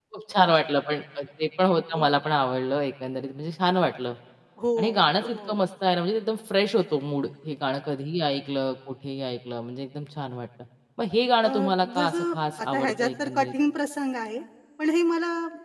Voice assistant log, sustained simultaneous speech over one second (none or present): present